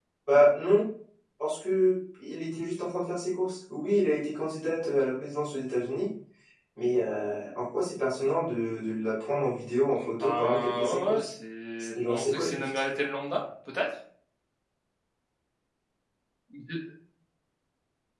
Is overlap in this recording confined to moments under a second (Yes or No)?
No